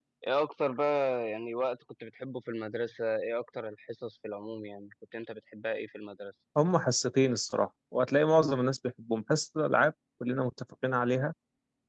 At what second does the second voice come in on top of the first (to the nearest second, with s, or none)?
none